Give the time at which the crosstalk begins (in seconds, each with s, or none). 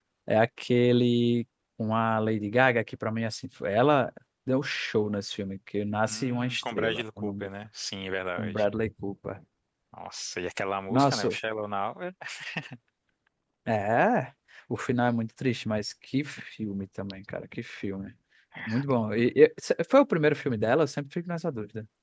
6.1 s